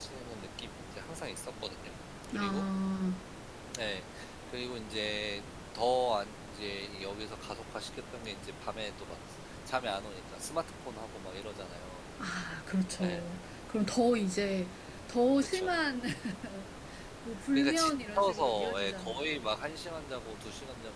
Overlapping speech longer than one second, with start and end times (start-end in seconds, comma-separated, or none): 17.5-19.5